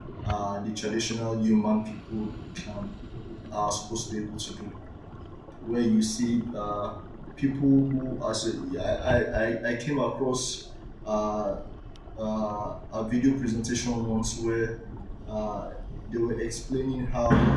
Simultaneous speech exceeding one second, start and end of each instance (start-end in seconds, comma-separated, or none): none